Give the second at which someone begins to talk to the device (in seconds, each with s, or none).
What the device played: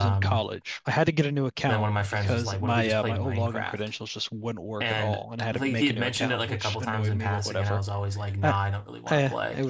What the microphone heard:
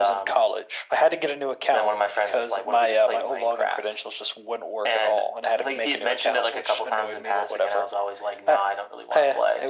none